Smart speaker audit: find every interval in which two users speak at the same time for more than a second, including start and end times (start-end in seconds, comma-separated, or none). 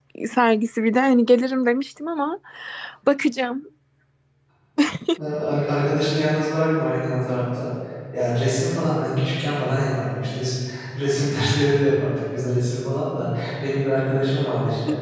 none